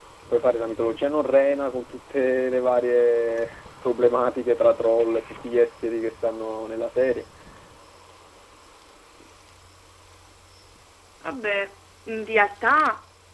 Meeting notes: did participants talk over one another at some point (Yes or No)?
No